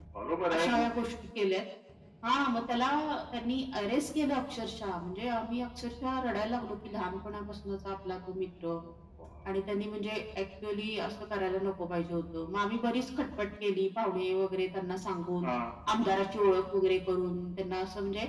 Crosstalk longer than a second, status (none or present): none